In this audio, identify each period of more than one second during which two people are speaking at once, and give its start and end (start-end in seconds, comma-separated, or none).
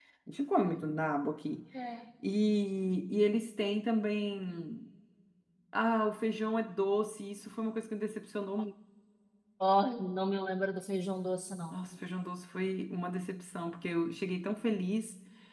none